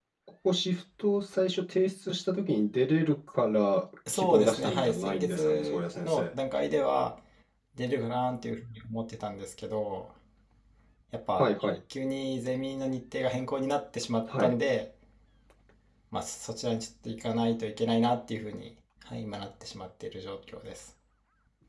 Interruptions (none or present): present